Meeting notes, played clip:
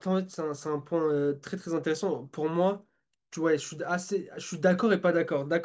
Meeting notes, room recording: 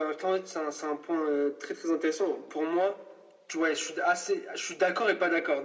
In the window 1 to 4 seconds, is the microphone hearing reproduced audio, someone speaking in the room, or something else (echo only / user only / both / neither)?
echo only